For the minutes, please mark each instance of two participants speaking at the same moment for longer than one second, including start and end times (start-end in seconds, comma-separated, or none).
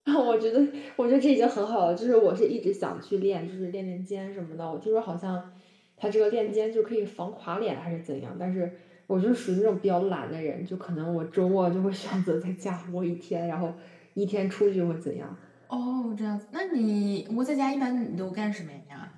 none